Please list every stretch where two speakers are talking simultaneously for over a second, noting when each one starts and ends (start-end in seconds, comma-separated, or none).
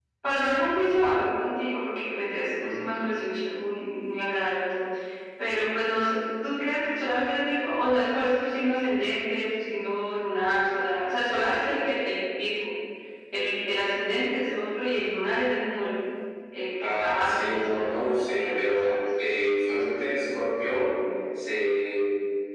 16.8-19.0